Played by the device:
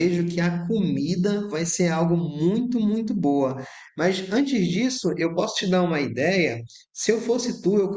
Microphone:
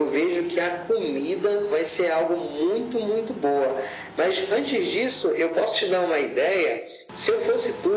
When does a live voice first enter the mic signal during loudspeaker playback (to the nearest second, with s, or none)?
none